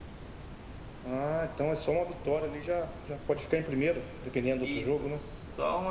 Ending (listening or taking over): taking over